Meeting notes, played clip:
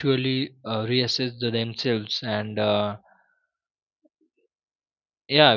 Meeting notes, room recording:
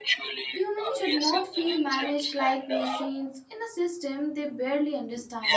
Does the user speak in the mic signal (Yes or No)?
Yes